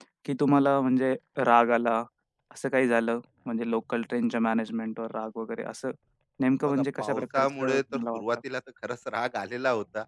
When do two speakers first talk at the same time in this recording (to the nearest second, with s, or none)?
7 s